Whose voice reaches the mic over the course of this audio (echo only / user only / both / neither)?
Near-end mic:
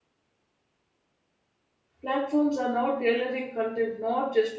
user only